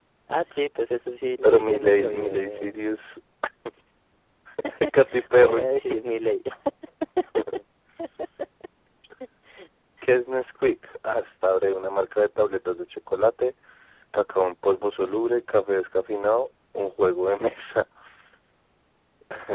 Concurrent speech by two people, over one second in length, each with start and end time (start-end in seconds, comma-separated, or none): 1.4-2.8